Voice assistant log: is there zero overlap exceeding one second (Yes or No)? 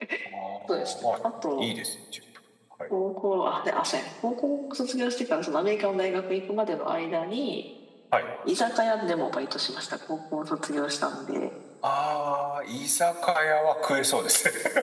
Yes